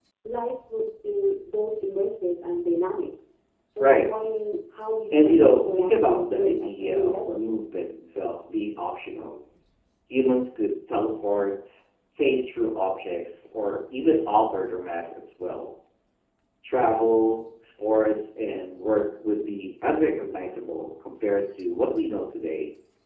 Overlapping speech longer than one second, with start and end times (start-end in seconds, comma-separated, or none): 5.1-7.4